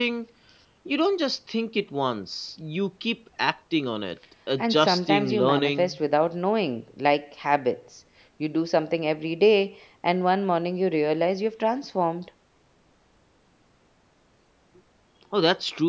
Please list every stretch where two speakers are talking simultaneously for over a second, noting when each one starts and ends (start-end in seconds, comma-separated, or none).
4.6-5.9